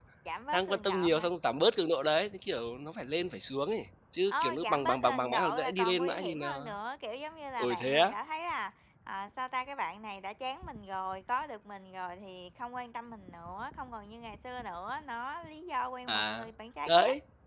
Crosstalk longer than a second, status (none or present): present